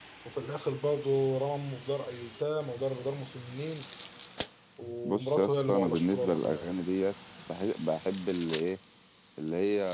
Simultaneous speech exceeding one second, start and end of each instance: 5.0-6.7

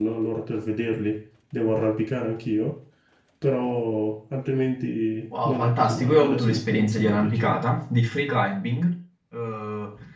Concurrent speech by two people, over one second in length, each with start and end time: 5.3-7.6

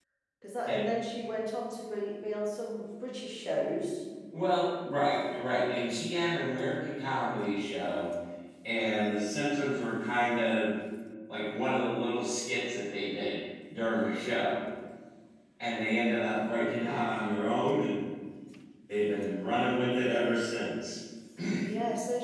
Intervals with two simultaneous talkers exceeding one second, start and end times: none

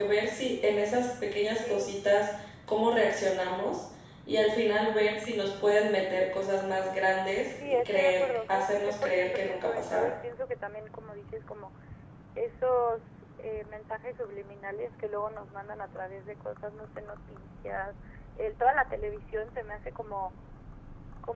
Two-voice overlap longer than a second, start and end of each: 7.7-10.1

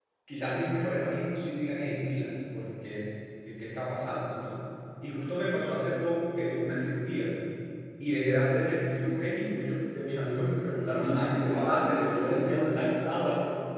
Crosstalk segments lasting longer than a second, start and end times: 10.7-12.9

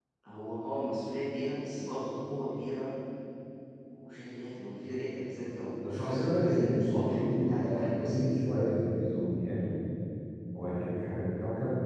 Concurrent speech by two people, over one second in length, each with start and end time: 5.8-8.4

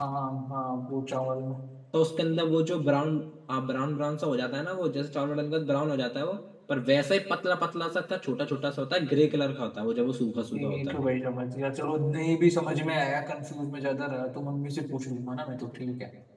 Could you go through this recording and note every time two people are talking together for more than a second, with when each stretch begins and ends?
none

